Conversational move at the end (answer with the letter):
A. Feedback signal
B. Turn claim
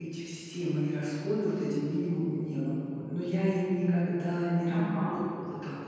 A